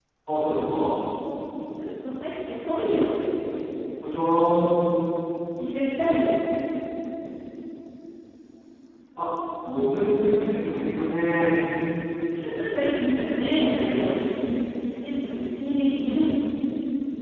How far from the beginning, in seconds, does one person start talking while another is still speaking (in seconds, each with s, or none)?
none